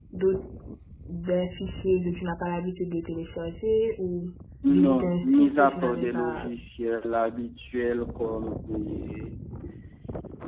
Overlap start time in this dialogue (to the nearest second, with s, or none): 5 s